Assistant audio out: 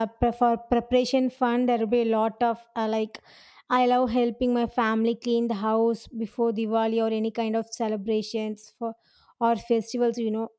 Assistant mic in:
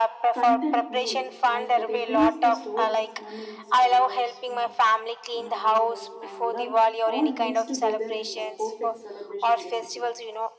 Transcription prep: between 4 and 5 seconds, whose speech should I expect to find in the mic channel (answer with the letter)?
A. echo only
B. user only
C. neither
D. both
D